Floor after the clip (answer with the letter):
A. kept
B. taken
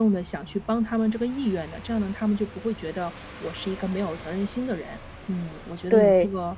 A